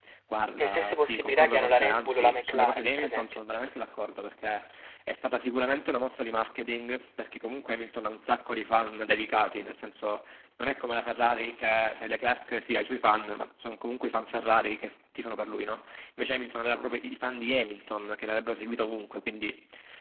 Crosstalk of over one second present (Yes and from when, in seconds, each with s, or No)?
Yes, from 0.6 s